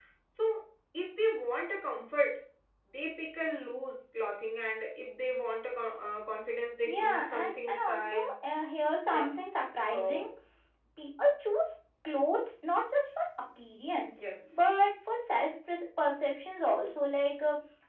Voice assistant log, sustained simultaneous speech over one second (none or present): present